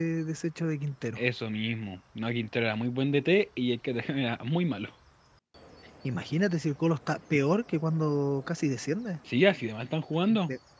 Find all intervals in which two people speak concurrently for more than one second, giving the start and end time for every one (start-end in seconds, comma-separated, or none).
none